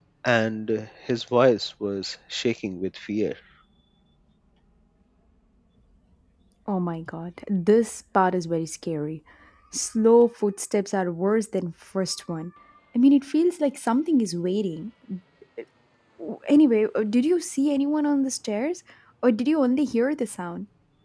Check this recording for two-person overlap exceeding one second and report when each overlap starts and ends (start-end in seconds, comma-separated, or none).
none